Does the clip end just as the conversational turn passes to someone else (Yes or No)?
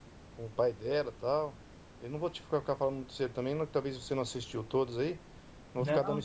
Yes